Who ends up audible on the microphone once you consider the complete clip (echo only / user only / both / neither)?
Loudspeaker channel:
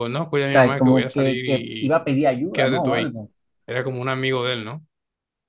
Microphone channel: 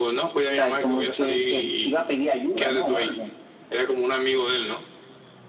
echo only